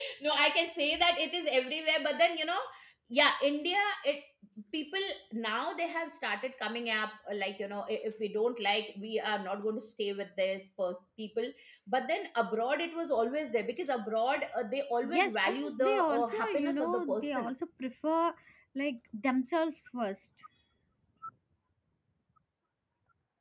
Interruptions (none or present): present